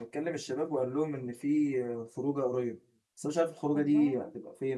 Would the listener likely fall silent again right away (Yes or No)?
Yes